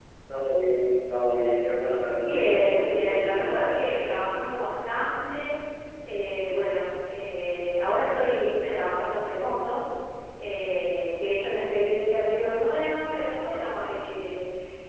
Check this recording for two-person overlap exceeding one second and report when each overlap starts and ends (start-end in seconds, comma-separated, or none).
2.1-3.8